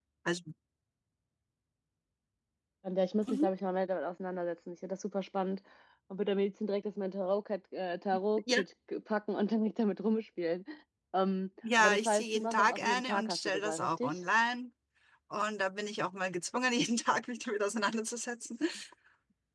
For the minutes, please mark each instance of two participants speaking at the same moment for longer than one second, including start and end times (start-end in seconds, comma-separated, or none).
11.8-14.2